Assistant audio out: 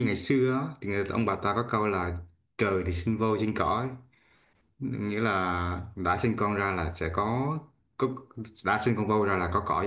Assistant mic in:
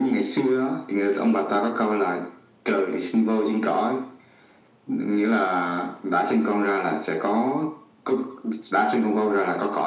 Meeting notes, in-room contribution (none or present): none